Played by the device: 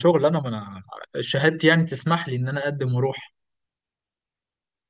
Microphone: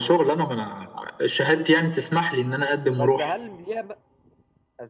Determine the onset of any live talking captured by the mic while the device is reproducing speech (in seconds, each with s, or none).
3.0 s